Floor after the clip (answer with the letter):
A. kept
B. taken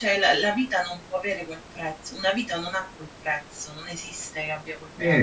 B